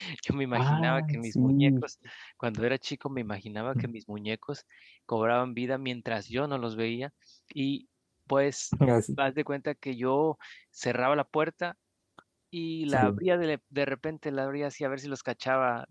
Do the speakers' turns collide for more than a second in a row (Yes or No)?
Yes